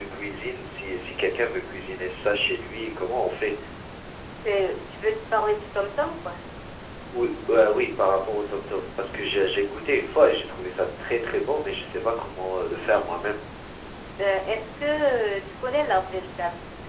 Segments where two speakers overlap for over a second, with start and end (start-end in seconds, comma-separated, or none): none